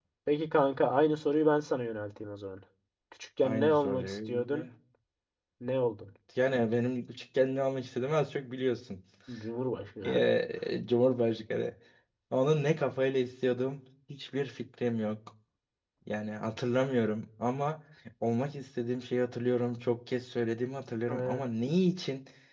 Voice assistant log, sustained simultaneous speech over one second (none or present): present